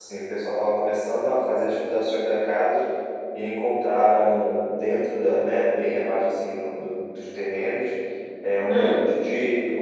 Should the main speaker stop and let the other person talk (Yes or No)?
No